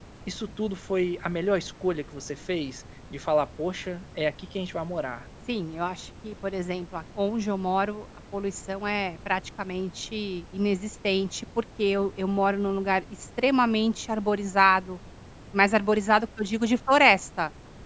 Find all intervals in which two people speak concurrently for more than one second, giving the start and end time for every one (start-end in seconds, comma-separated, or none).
none